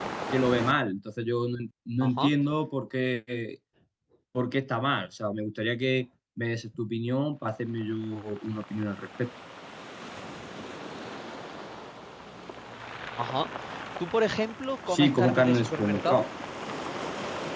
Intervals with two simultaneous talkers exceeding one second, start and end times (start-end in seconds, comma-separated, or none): 14.9-16.2